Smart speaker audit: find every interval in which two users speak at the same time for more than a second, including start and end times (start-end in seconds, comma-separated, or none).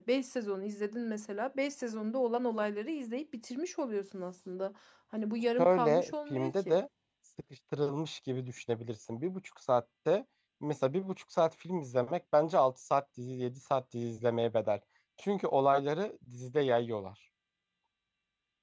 5.6-6.8